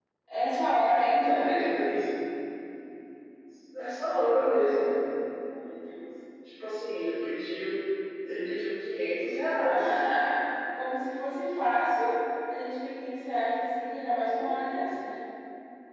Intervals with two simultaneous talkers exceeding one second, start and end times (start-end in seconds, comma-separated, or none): none